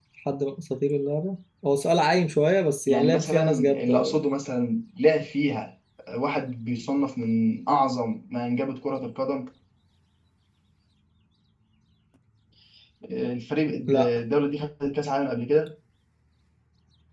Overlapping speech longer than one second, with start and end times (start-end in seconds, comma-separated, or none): 2.9-4.2